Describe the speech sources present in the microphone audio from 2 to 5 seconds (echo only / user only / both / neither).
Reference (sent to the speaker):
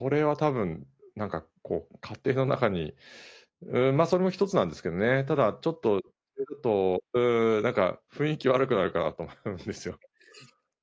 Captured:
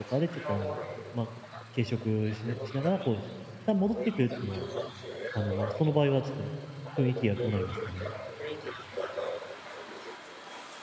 both